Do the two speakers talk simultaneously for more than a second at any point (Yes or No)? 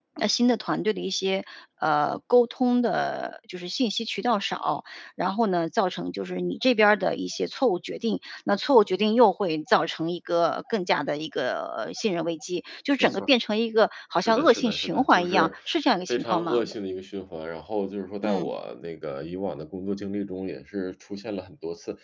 Yes